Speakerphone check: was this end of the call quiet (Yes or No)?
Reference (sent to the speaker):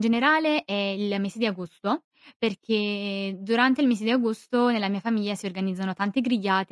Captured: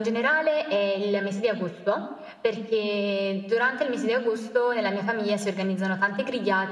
Yes